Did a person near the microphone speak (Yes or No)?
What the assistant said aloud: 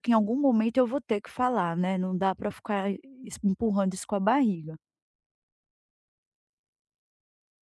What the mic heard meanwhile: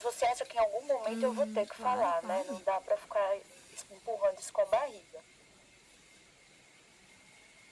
Yes